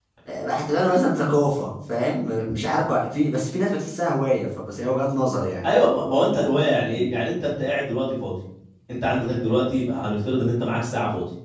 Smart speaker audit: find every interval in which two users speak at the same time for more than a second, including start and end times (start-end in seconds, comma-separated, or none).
none